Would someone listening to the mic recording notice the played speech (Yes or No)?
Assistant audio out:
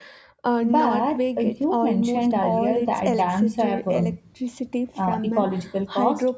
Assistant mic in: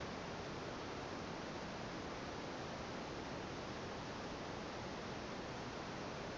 No